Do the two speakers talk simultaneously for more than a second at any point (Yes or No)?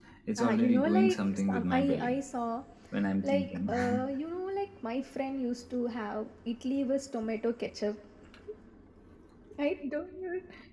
Yes